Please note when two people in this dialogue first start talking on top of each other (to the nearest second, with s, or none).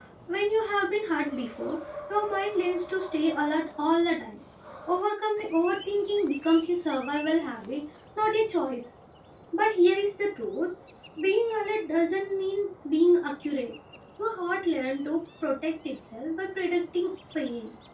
none